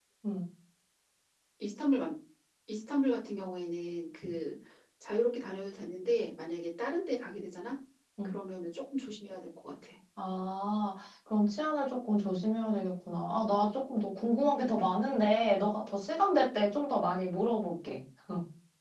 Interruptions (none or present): none